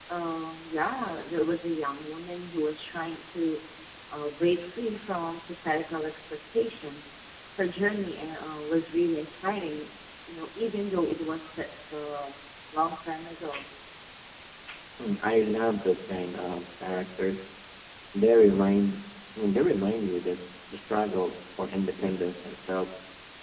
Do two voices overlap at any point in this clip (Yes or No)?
No